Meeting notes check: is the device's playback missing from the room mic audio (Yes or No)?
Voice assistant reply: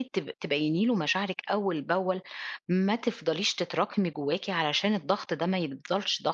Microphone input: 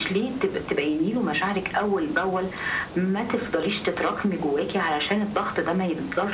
No